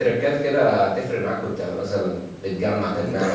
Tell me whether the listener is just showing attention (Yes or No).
No